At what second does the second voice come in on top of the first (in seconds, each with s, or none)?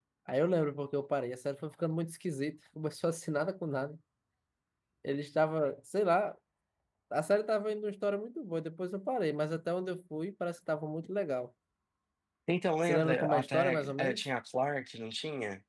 12.8 s